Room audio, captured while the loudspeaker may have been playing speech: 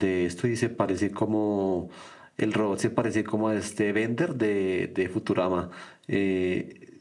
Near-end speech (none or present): none